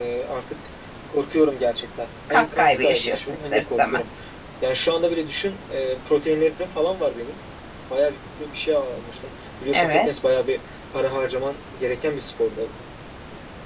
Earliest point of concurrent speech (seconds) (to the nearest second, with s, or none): 2 s